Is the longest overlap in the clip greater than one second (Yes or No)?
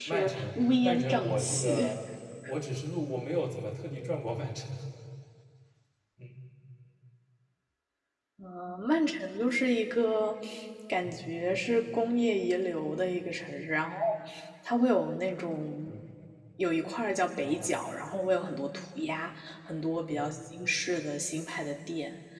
Yes